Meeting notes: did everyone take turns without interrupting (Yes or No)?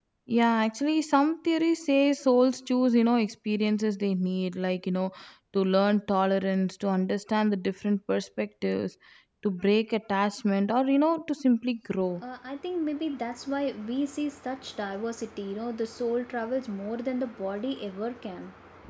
Yes